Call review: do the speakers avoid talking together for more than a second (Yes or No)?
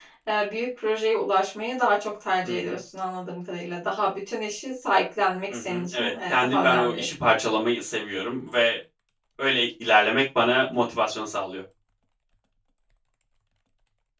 No